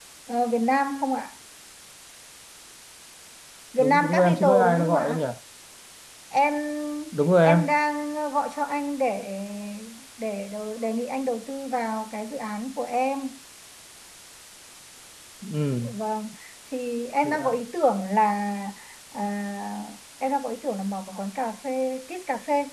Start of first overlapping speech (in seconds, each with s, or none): 3.8 s